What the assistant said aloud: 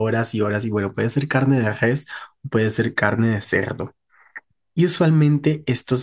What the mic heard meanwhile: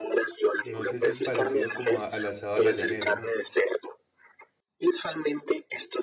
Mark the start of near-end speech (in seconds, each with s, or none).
0.6 s